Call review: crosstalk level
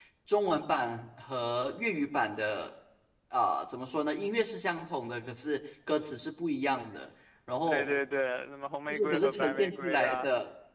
present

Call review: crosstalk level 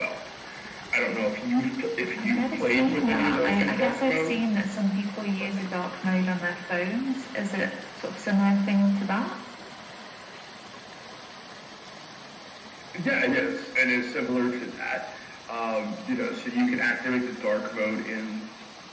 present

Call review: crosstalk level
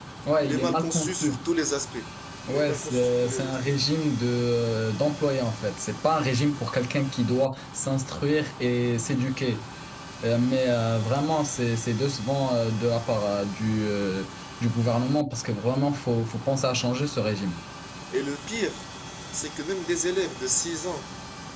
present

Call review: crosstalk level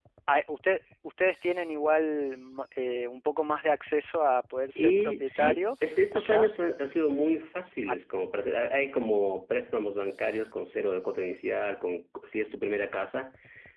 present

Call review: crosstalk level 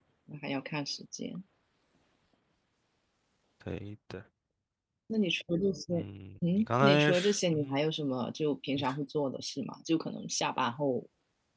present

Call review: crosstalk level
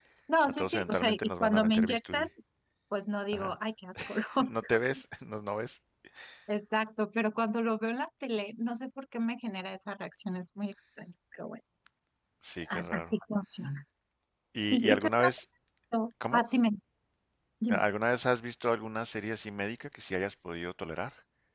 present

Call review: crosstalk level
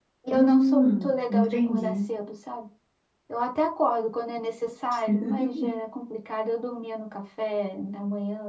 present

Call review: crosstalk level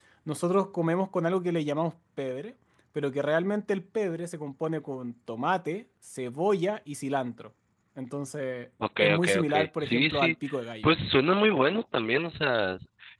present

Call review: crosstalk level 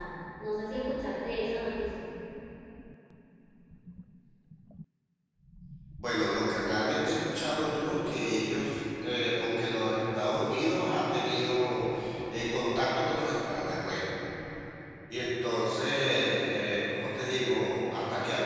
none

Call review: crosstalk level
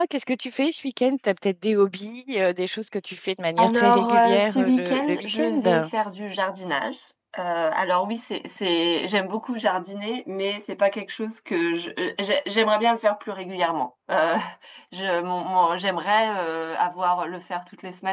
present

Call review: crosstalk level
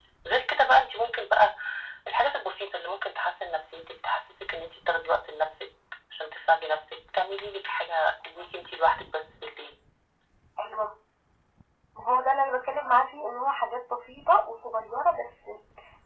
none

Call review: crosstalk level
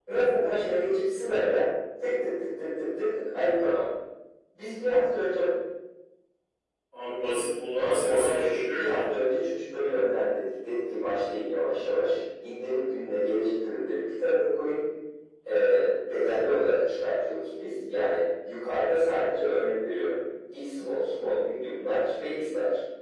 present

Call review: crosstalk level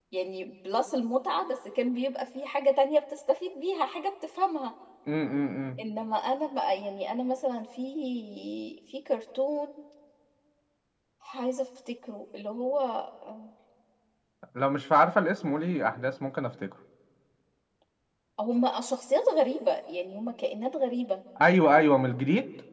none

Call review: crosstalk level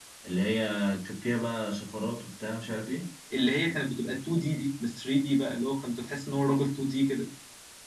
none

